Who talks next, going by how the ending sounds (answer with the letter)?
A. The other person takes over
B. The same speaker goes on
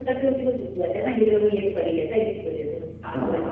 A